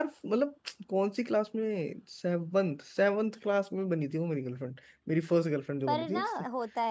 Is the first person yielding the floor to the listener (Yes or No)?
Yes